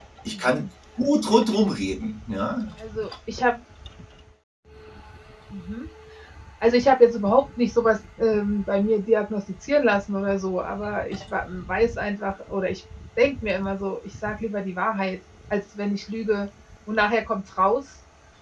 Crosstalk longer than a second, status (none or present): none